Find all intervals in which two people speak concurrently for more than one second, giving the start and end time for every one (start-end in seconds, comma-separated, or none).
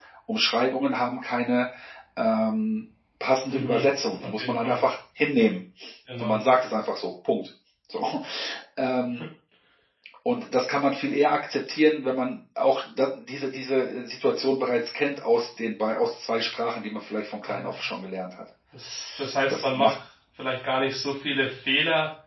3.5-4.8